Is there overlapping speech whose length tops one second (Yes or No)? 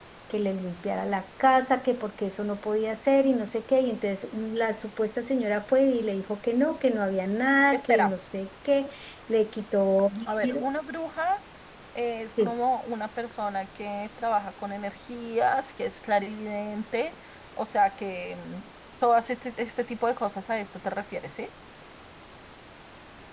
No